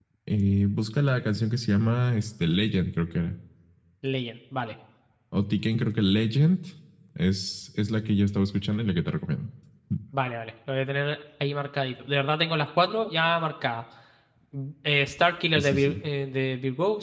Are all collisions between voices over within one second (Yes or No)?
Yes